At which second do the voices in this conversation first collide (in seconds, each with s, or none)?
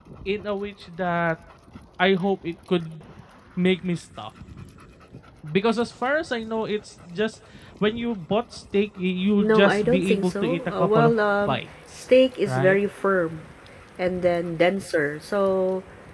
9.4 s